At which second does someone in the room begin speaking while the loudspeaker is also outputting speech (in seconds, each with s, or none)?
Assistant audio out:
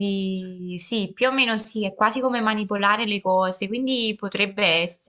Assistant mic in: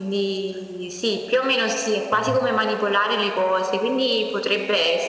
2.1 s